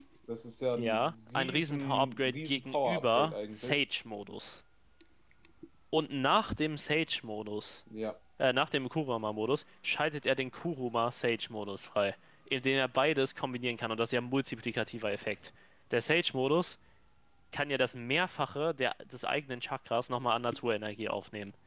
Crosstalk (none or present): present